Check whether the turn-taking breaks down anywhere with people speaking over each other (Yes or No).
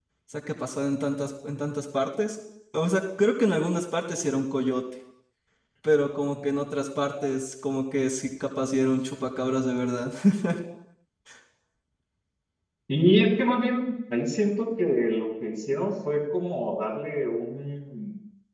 No